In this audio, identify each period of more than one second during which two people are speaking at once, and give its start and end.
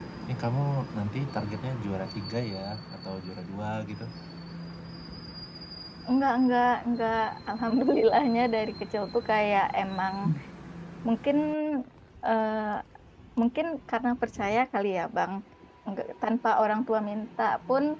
none

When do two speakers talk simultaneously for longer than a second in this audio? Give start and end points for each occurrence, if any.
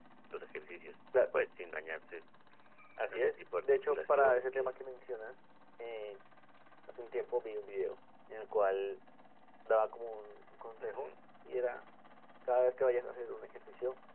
3.1-4.7

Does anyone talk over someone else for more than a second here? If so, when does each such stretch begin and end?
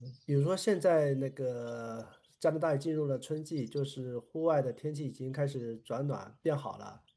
none

